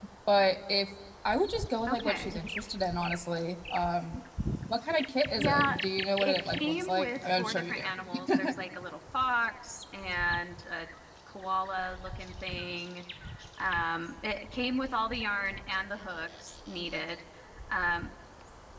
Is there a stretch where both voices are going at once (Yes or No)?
Yes